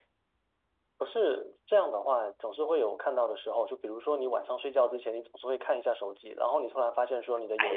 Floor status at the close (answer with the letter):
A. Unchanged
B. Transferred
B